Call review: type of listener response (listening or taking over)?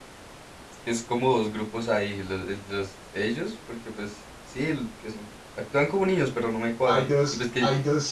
taking over